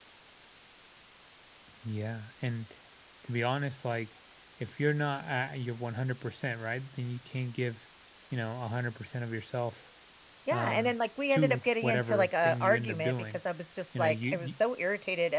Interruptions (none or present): present